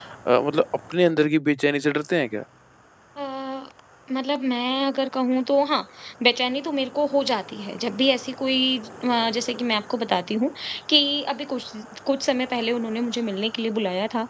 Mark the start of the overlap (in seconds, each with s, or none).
none